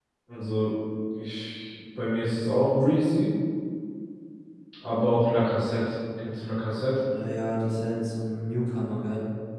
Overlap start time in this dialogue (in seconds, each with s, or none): none